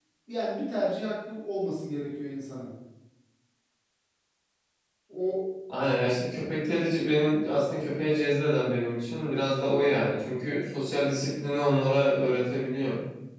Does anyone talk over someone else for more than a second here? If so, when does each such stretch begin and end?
none

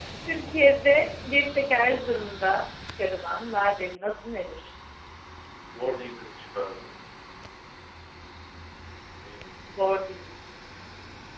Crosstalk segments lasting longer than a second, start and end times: none

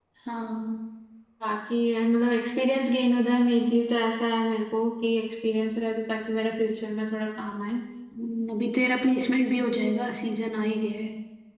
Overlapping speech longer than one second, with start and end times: none

